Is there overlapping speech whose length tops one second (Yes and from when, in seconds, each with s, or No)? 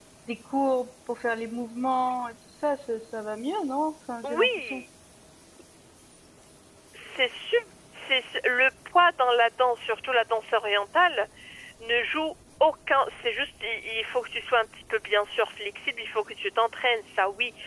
No